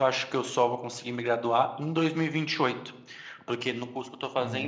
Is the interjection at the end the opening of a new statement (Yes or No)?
No